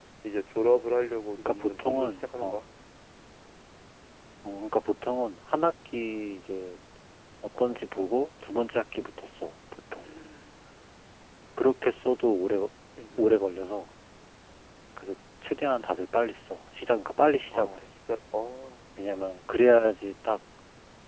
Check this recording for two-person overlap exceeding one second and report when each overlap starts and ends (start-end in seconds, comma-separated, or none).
1.4-2.6